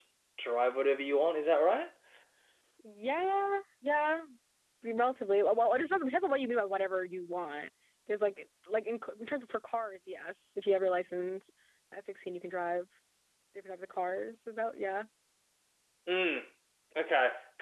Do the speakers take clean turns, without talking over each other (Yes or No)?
Yes